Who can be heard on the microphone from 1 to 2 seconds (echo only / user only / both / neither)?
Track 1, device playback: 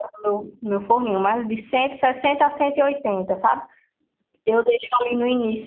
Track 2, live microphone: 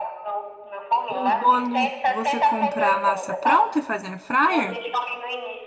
both